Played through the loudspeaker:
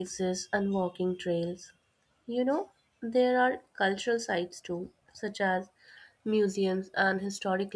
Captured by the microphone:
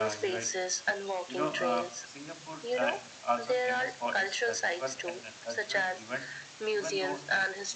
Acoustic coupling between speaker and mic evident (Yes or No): Yes